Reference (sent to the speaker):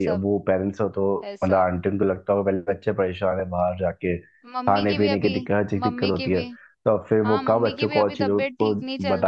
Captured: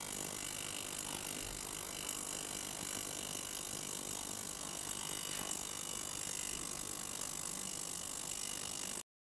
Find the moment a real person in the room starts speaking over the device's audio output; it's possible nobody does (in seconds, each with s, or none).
none